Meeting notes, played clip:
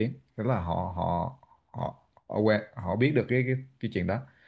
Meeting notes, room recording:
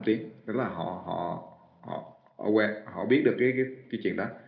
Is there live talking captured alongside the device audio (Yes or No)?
No